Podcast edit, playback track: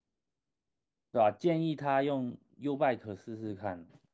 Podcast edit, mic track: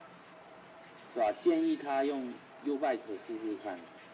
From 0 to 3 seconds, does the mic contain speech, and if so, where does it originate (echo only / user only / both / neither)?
echo only